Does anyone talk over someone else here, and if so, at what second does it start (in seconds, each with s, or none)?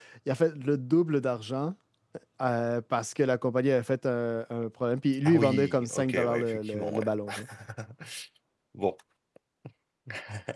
5.2 s